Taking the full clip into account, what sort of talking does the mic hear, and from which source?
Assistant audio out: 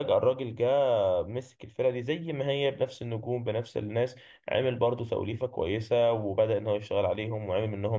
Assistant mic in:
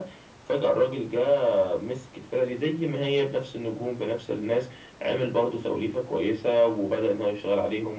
echo only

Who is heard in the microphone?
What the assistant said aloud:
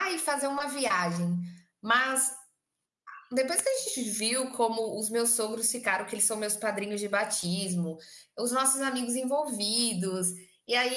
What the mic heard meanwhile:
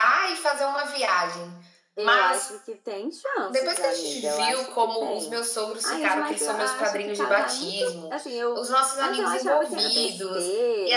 both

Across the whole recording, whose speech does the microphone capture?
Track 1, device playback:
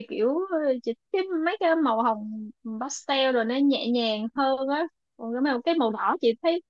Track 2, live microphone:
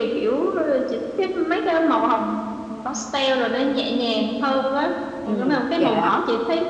both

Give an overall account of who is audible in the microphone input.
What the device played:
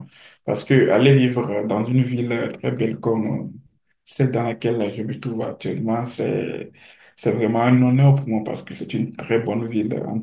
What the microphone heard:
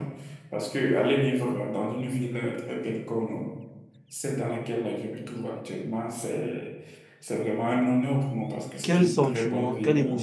both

